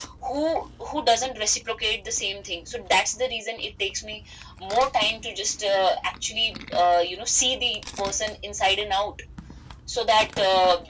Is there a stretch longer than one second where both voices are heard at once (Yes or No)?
No